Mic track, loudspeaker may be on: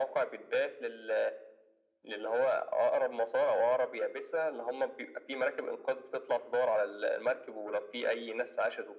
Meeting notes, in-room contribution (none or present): none